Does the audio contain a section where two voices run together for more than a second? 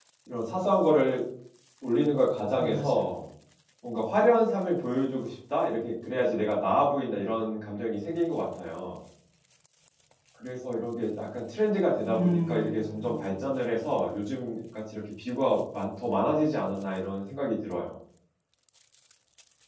Yes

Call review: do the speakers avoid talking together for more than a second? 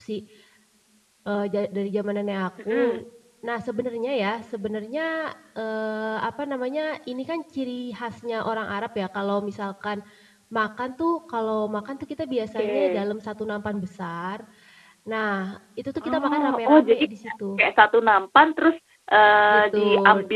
No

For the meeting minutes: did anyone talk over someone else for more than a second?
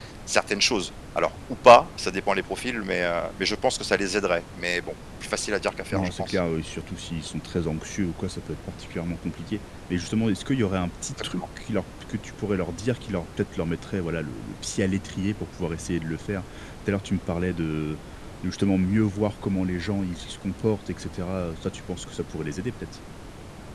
No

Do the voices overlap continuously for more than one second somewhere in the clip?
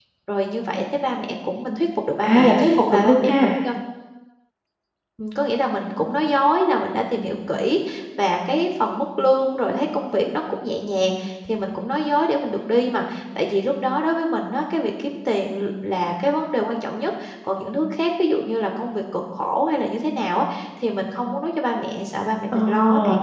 Yes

